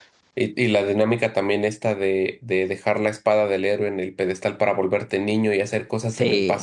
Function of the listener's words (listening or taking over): listening